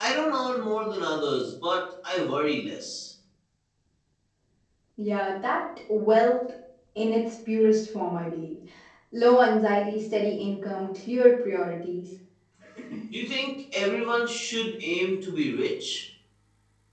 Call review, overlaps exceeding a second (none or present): none